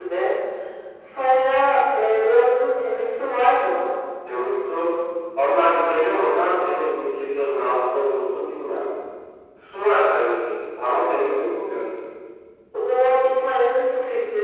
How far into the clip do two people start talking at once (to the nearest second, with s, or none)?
none